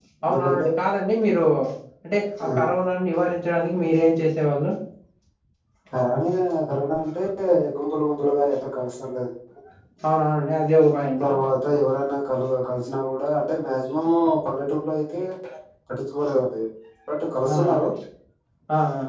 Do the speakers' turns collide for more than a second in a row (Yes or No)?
No